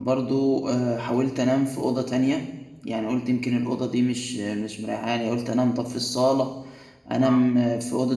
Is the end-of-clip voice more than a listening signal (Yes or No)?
No